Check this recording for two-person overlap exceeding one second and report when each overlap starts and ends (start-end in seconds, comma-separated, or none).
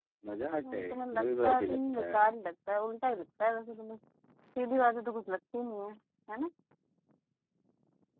0.6-2.3